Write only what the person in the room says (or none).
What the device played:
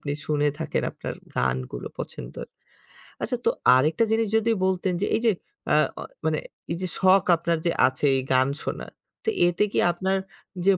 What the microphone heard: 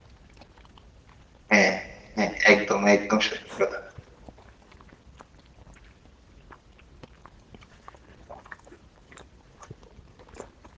হ্যাঁ, হ্যাঁ। একদম, একদম সত্যি কথা।